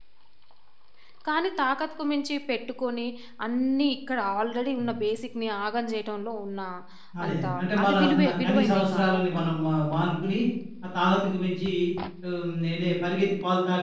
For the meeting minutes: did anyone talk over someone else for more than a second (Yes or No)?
Yes